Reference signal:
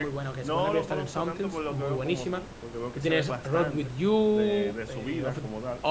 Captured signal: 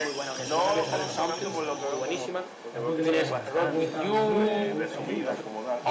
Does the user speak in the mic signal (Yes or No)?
Yes